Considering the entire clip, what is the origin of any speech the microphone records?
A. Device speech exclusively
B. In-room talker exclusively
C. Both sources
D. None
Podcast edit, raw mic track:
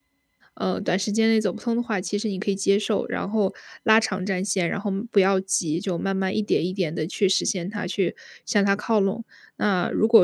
B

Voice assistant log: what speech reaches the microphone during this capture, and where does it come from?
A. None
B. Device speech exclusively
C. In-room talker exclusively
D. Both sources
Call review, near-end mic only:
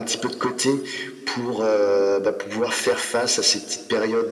B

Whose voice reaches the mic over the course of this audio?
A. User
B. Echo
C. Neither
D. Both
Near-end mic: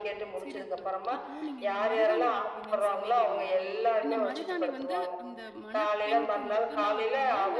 D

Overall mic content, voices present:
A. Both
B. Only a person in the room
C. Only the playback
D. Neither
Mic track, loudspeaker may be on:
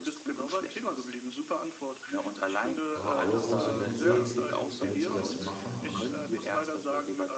A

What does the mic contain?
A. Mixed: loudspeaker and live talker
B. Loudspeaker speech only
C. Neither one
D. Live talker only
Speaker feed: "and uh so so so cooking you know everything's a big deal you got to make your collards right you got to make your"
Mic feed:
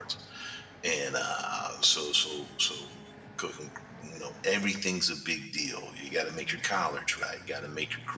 B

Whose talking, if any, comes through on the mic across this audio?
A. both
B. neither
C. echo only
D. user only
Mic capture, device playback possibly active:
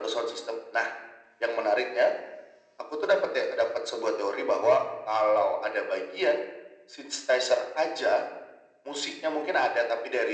C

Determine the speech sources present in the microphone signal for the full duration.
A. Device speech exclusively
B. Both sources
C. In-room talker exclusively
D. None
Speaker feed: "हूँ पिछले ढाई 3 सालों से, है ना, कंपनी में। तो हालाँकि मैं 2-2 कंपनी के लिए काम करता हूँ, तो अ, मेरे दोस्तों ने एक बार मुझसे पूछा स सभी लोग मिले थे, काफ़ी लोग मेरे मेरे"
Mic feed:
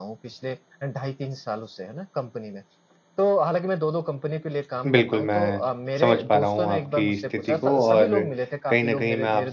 B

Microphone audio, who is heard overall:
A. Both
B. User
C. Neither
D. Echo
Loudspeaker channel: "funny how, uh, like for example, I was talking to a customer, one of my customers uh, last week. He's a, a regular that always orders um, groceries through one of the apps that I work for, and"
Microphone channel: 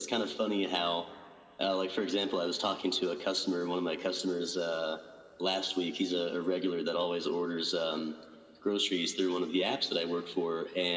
D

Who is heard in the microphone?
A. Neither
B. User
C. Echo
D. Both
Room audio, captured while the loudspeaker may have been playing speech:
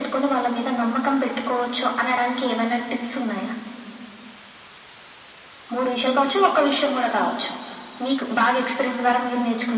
C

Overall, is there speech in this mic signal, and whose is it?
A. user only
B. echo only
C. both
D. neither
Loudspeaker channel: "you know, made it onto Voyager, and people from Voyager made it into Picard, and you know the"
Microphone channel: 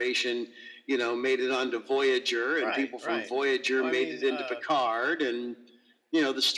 C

